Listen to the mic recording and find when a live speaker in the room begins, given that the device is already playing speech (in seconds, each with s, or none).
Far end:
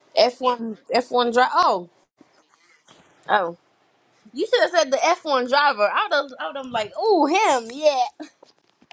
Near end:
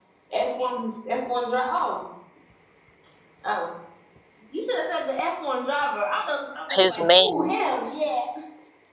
6.8 s